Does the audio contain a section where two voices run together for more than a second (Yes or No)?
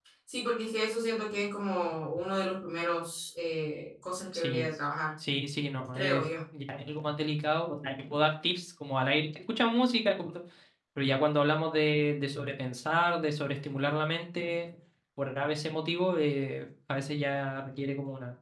No